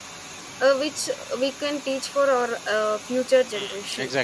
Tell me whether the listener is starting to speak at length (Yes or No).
Yes